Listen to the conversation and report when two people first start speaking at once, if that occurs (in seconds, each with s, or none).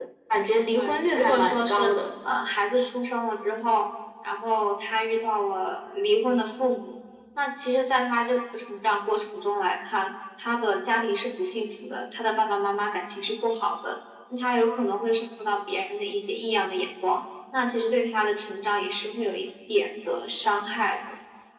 0.7 s